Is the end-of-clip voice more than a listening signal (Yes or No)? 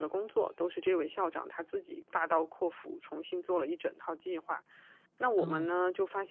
No